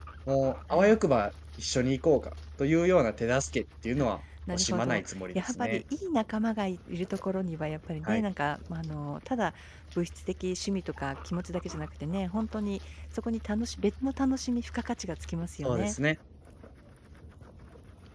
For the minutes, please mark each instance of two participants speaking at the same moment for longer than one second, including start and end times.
4.5-5.8

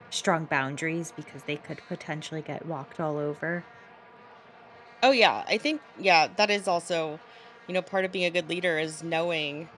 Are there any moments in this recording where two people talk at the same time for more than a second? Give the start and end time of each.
none

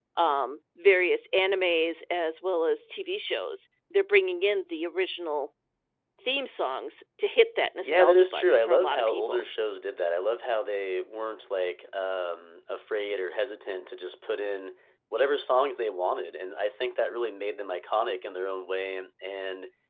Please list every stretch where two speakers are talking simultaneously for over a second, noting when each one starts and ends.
7.8-9.4

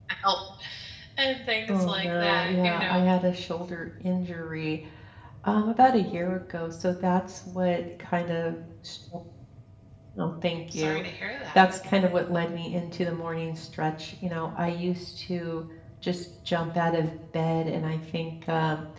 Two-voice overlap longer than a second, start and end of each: 1.7-3.1

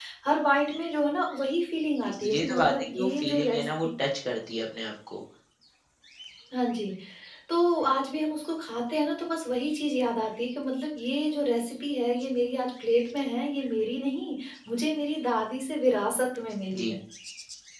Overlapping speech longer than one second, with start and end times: 2.0-3.7

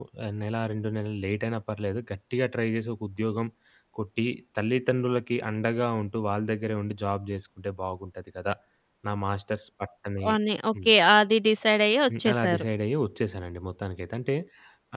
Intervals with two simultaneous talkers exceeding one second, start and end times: none

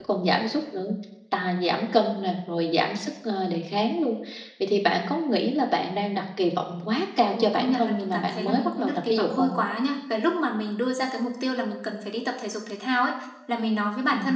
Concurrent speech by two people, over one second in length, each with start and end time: 7.3-9.5

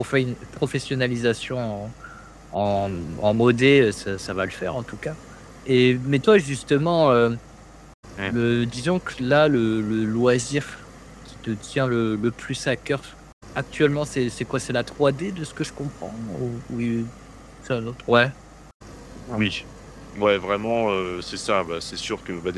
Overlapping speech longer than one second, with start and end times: none

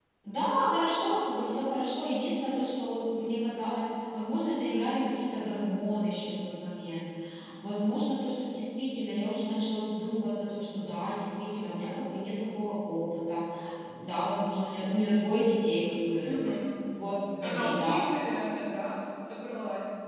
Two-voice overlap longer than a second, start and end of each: none

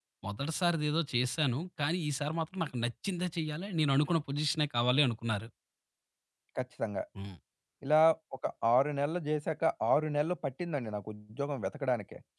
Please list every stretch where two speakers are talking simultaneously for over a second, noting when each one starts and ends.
none

